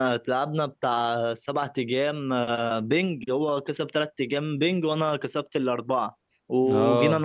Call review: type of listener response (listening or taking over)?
listening